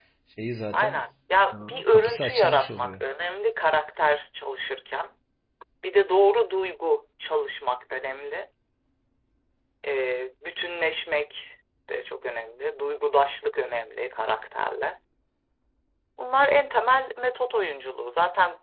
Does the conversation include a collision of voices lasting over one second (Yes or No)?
Yes